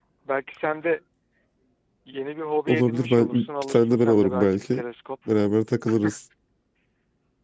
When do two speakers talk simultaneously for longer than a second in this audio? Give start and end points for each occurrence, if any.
2.7-4.8

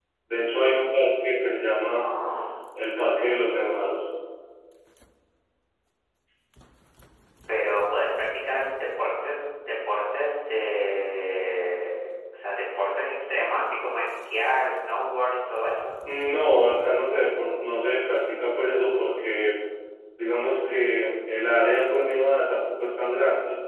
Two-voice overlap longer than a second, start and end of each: none

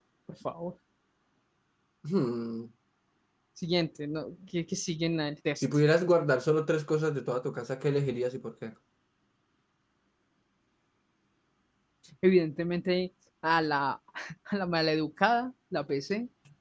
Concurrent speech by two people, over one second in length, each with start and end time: none

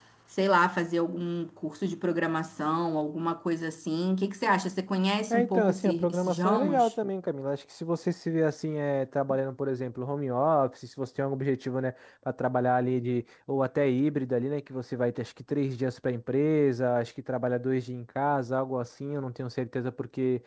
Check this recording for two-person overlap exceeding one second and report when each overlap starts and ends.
5.3-6.9

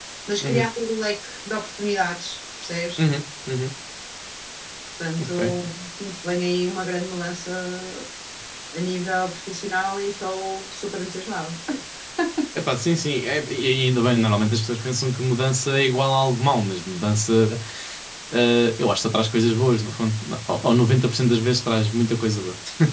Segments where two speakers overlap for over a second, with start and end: none

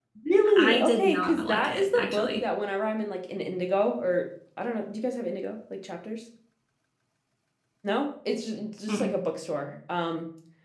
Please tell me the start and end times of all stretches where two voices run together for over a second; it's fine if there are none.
0.6-2.4

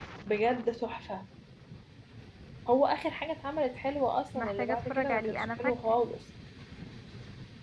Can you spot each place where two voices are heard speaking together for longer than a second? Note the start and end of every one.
4.3-6.0

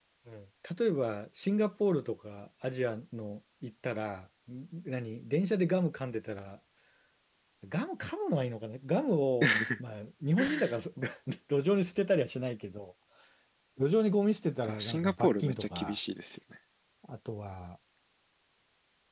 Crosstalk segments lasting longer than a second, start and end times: 14.6-16.0

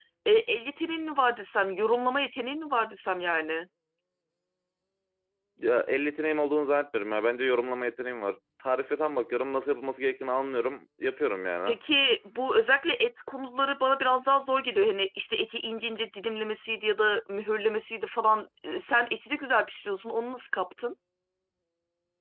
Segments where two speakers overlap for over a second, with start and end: none

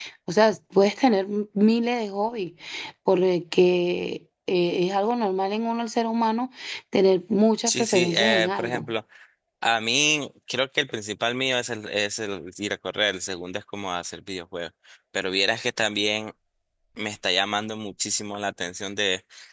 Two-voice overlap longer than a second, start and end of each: 7.7-8.9

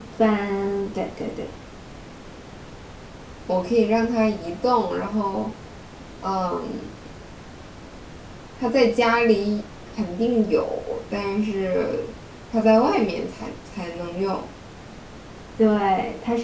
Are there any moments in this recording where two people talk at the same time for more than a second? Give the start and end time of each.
none

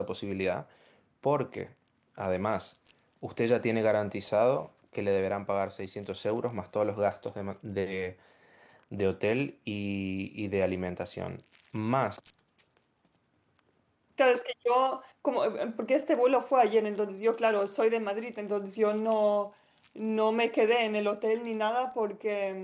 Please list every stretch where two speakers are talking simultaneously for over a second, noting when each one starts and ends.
none

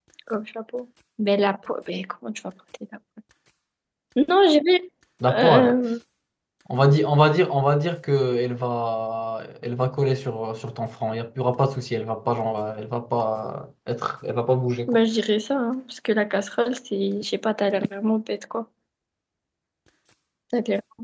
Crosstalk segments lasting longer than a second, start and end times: none

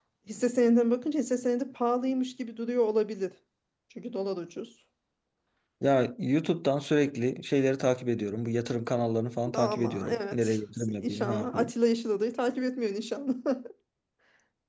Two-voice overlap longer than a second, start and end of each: 9.5-11.7

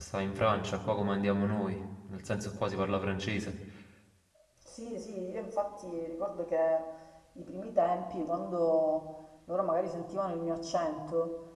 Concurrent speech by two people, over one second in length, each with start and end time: none

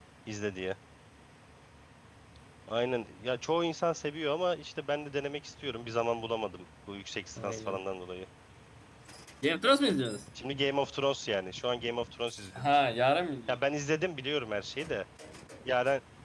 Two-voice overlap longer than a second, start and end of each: none

